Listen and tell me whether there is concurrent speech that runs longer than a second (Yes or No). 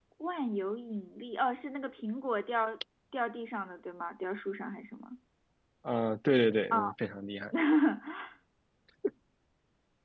No